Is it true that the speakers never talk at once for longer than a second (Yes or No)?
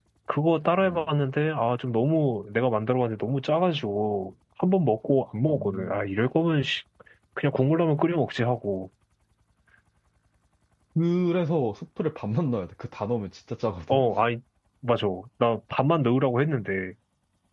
Yes